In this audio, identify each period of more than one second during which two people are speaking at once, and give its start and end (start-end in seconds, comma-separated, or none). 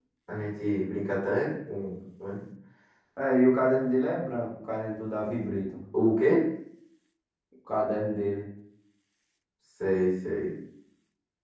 none